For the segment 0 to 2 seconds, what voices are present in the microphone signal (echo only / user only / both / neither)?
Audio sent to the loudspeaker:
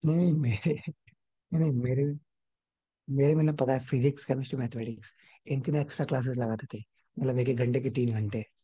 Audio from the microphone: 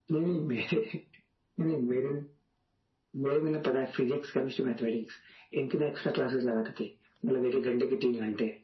echo only